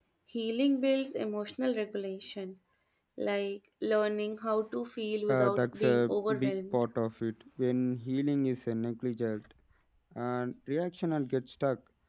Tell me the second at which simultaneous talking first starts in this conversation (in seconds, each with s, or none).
5.3 s